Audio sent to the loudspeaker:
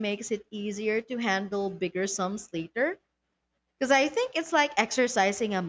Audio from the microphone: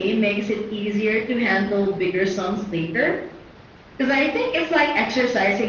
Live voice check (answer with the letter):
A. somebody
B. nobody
B